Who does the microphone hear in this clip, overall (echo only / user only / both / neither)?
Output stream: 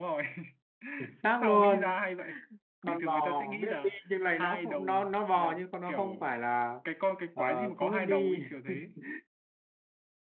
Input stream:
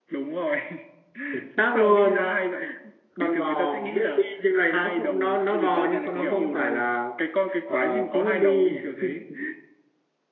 both